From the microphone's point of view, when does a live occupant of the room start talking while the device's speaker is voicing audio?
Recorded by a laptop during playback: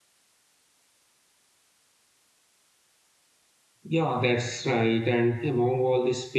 3.8 s

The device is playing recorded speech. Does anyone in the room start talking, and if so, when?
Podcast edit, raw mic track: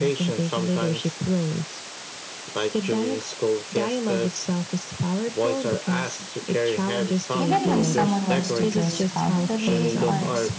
7.4 s

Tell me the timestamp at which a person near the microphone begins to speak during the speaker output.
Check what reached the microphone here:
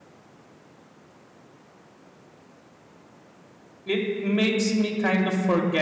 3.8 s

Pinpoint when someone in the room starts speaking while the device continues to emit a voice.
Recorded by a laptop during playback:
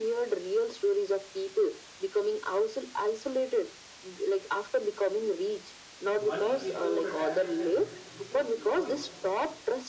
6.1 s

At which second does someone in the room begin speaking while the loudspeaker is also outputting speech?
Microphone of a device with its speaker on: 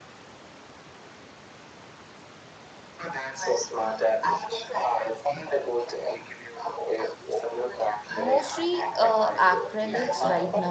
8.2 s

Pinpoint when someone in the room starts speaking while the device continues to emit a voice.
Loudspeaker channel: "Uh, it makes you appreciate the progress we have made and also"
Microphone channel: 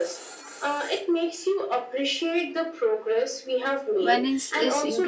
4.0 s

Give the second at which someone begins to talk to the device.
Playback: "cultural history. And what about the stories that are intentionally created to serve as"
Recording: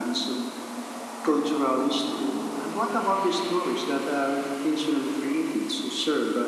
none

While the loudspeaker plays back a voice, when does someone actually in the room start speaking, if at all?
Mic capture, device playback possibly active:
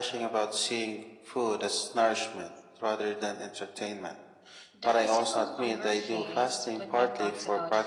4.7 s

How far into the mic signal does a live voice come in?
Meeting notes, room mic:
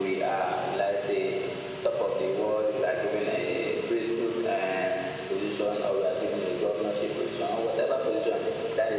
none

